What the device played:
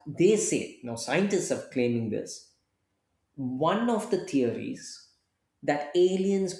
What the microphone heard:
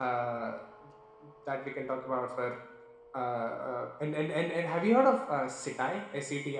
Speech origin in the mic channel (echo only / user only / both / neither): user only